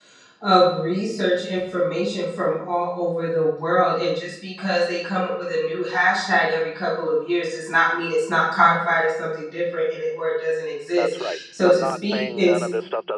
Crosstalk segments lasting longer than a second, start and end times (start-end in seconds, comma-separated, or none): 11.0-12.7